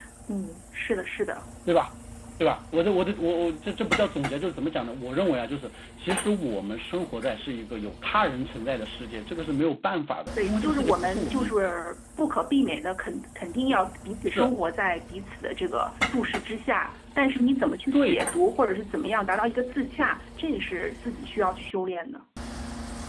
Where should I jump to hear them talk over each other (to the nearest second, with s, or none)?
10 s